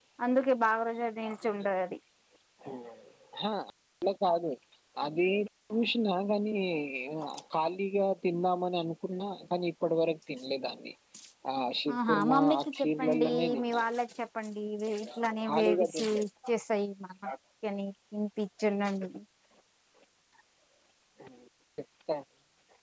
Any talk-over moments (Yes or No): Yes